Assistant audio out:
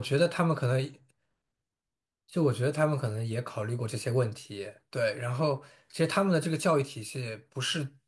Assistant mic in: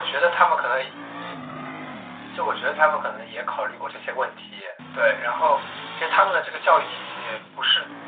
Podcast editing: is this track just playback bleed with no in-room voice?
Yes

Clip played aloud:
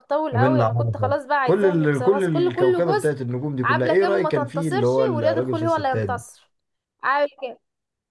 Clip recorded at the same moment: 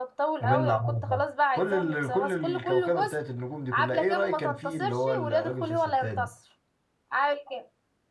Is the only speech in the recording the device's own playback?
Yes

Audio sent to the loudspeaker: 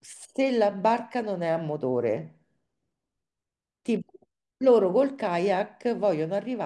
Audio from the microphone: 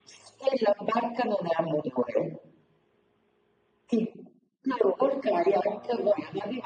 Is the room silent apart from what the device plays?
Yes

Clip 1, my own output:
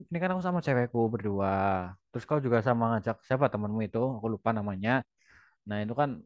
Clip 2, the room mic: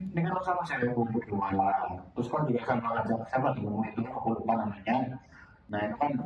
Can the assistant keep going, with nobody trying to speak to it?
Yes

